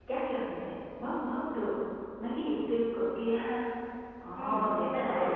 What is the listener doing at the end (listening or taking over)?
taking over